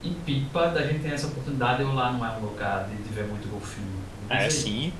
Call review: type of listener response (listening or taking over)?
taking over